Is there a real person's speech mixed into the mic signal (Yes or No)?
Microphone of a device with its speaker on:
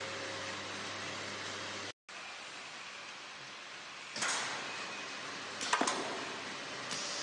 No